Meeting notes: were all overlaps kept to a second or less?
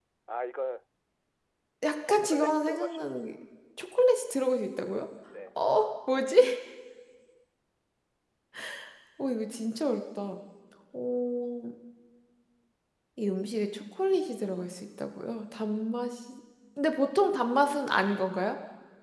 No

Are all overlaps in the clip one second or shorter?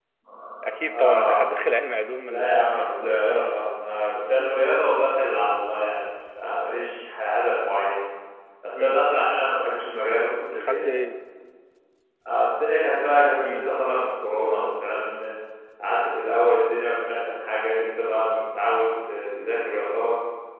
No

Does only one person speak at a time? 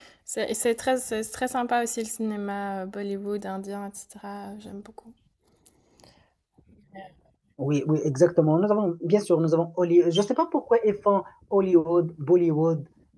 Yes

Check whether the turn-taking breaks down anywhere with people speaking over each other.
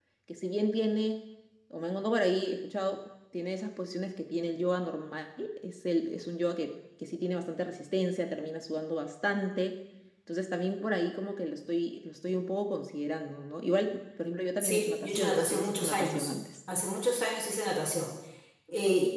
Yes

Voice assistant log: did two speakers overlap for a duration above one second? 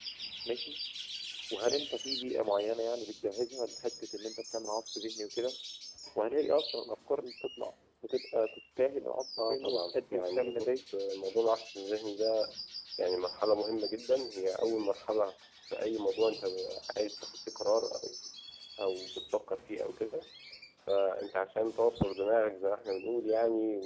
Yes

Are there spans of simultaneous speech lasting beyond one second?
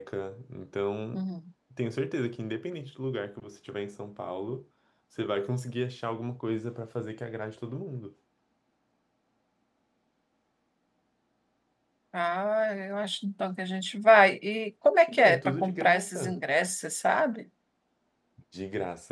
Yes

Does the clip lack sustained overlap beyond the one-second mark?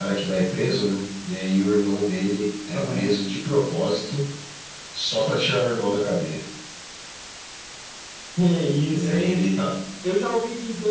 Yes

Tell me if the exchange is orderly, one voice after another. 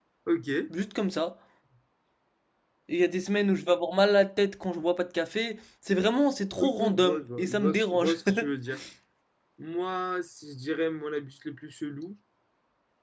No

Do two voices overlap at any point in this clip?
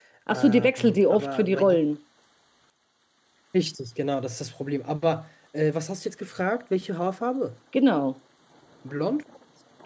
Yes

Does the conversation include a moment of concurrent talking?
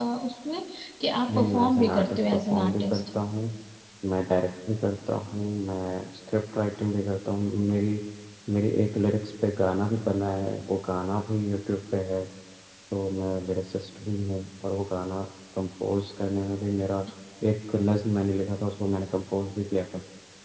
Yes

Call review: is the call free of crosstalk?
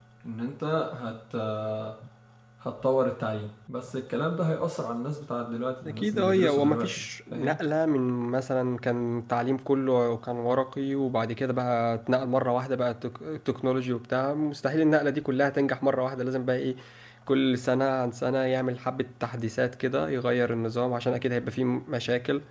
No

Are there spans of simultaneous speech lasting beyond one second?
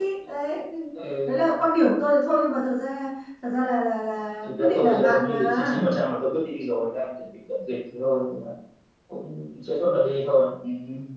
Yes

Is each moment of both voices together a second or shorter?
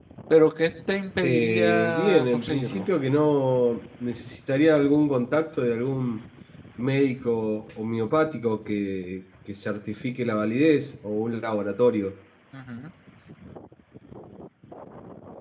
No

